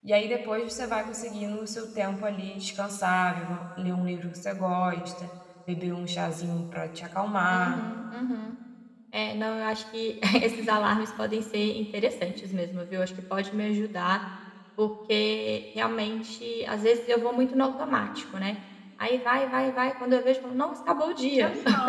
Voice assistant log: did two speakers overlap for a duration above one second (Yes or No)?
No